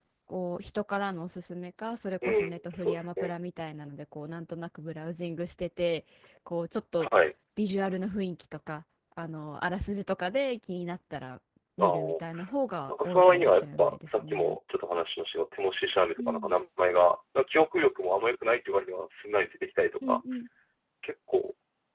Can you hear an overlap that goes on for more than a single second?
Yes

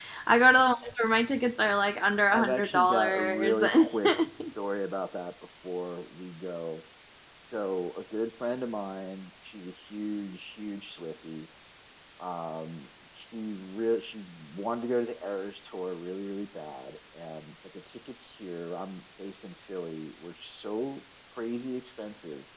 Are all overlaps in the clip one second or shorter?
No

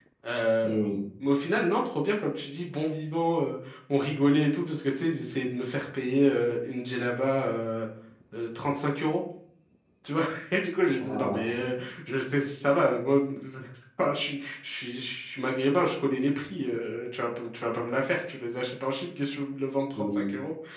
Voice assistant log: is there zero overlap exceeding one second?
Yes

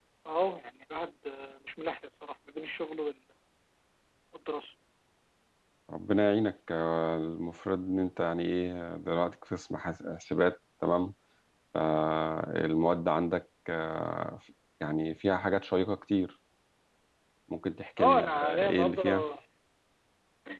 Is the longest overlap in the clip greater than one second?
Yes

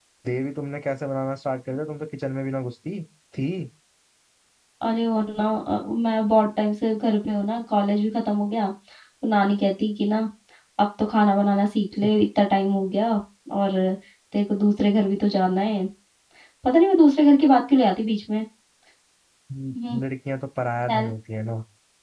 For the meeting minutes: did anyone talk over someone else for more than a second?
No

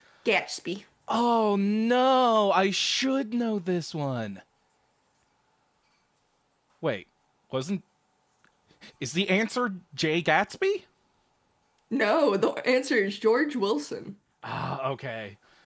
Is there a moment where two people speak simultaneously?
No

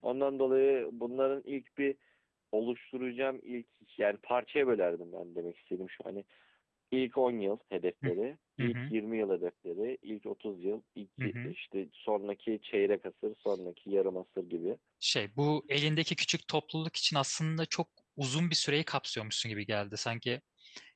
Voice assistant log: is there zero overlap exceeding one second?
Yes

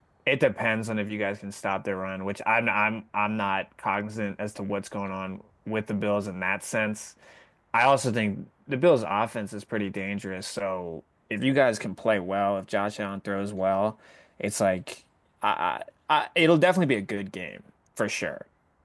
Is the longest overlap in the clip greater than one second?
No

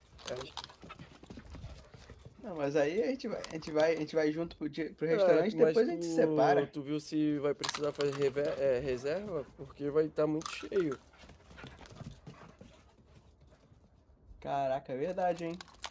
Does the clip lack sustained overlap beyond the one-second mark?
No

